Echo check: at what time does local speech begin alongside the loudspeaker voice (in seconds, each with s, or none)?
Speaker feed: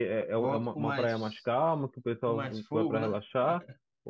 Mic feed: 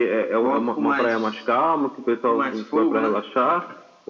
none